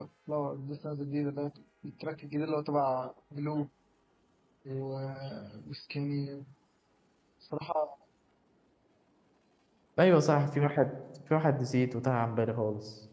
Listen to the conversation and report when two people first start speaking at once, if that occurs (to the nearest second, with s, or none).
none